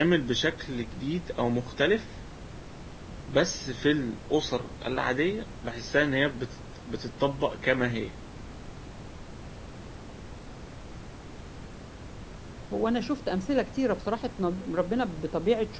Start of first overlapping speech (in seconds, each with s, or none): none